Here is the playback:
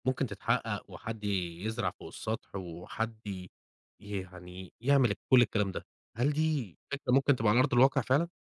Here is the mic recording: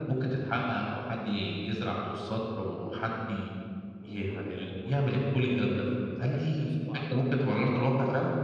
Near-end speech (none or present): present